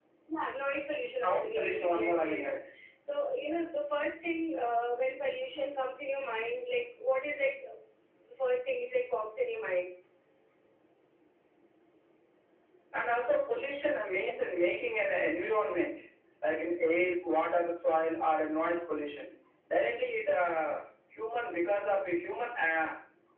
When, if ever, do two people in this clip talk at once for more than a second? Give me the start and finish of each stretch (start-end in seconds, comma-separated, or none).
1.2-2.4